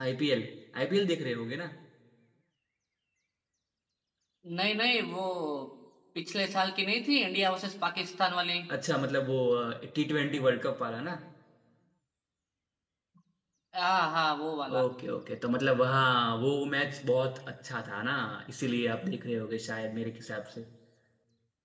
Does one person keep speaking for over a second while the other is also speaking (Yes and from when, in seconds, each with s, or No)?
No